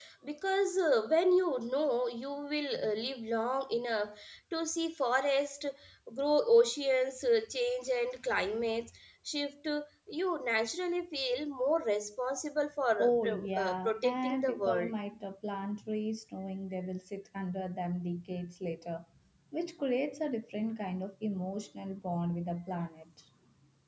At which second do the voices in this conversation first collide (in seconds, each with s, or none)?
13.0 s